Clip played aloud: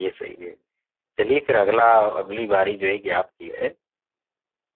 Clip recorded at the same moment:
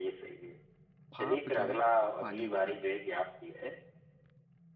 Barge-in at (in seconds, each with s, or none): 1.1 s